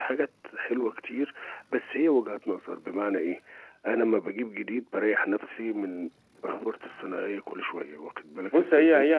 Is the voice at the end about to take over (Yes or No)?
Yes